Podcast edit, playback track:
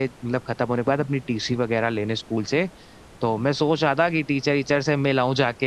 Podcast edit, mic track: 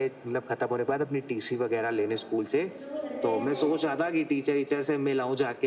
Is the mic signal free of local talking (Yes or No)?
No